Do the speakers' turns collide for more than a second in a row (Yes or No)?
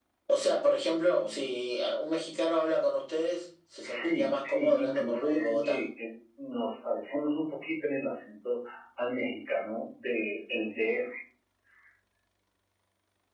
Yes